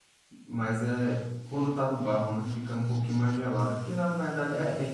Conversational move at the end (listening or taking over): taking over